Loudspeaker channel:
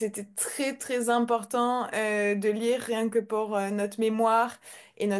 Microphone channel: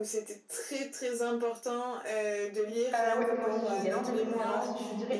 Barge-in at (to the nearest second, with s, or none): 3 s